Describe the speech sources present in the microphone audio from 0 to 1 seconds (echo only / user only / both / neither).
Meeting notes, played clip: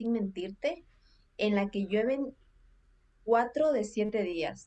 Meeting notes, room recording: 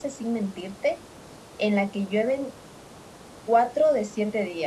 echo only